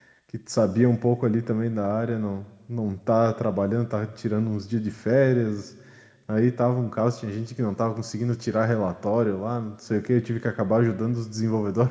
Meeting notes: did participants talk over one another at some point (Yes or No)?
No